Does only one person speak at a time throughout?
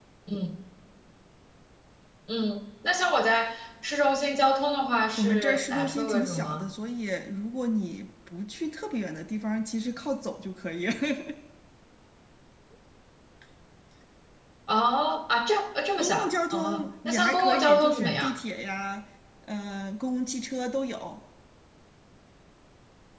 No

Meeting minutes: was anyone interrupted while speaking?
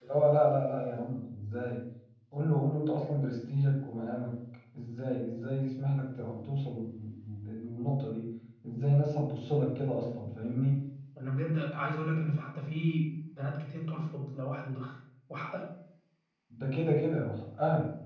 No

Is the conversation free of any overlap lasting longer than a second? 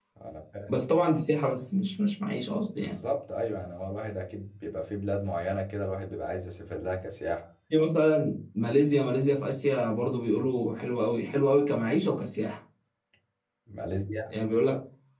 Yes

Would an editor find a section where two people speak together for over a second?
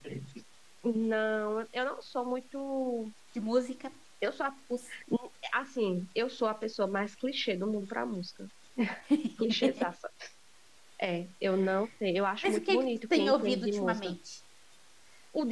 Yes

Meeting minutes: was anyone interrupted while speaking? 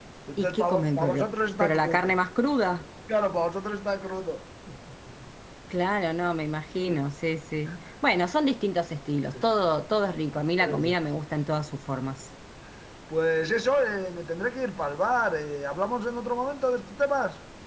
Yes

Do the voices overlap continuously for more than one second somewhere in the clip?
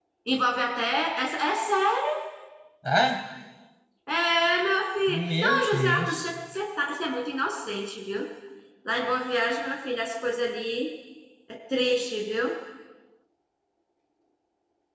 Yes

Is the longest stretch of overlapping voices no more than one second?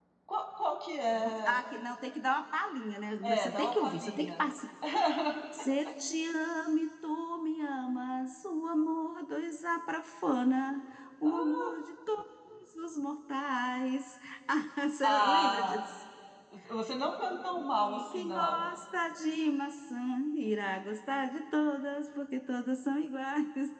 No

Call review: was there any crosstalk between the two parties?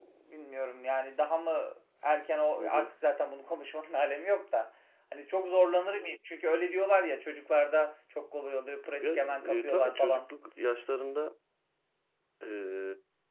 Yes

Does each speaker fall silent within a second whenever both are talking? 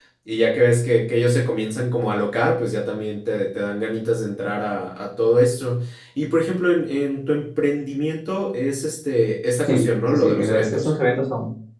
No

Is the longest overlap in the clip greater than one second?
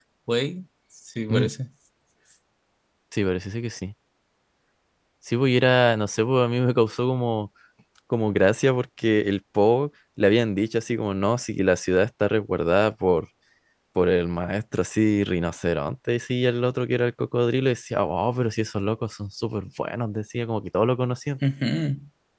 No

